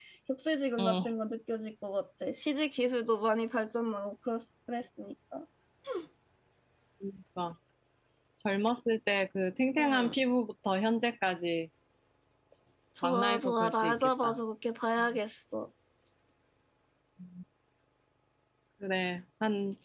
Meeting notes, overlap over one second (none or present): present